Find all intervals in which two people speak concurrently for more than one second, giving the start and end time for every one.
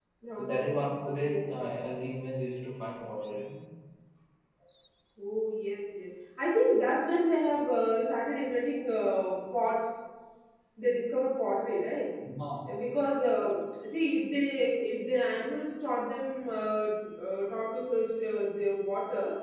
none

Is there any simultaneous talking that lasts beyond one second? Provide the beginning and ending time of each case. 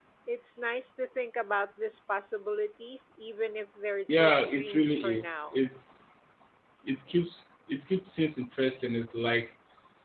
4.1-5.6

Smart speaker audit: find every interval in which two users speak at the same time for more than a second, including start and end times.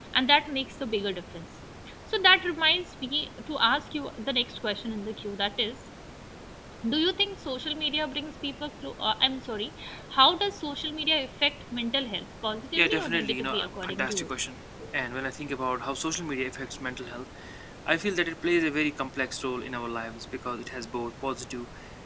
12.8-14.3

